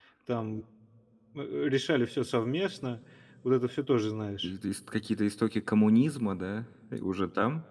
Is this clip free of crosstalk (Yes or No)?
Yes